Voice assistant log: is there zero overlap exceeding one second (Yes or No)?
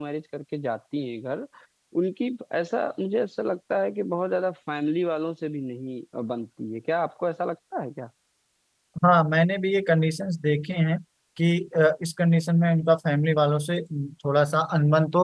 Yes